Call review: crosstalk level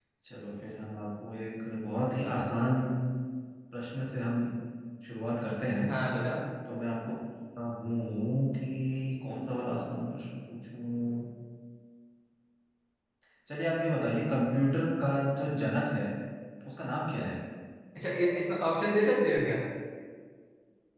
none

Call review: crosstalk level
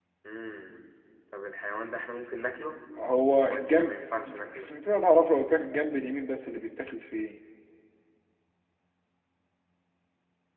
present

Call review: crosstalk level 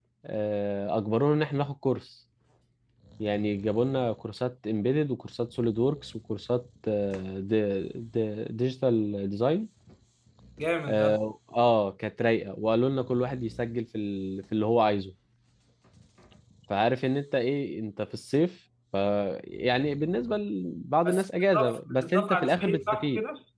present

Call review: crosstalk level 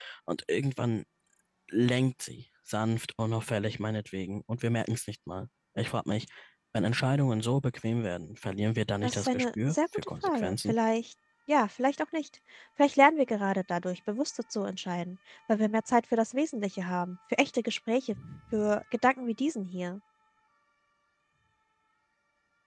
present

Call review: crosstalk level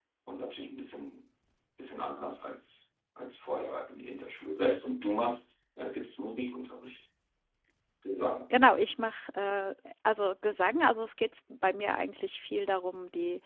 none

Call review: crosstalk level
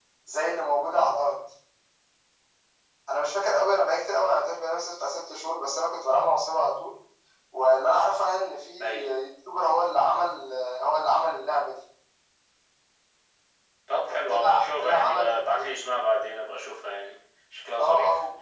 present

